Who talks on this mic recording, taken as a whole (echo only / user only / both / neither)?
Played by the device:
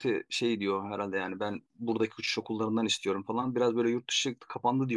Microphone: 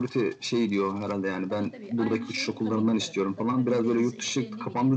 both